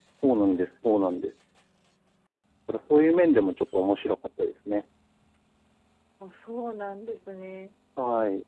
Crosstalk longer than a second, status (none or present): none